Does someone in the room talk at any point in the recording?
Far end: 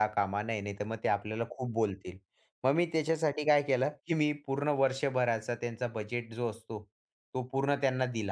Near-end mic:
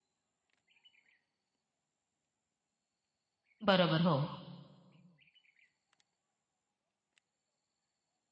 Yes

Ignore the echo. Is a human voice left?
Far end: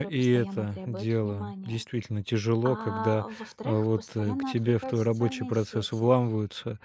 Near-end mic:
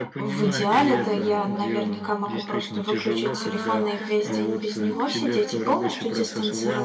Yes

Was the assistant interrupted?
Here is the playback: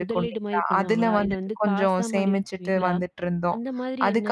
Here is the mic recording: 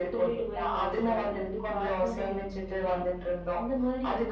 No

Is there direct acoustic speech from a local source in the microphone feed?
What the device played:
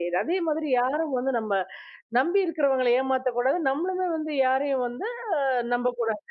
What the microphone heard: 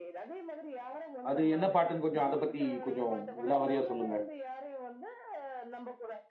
Yes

